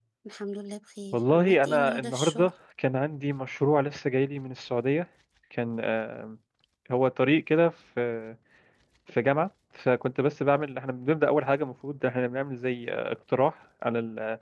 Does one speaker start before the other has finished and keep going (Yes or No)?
Yes